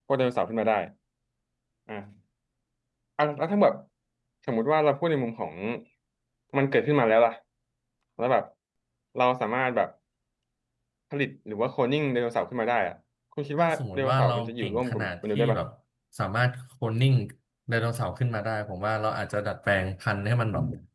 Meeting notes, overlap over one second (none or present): present